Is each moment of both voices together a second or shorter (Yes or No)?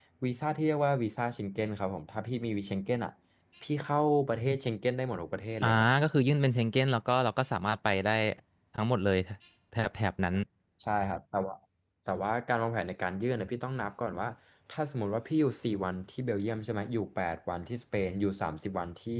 Yes